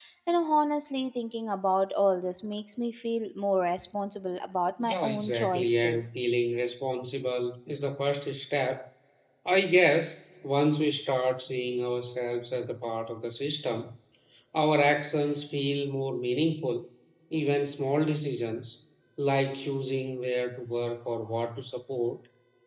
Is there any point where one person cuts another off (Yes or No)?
Yes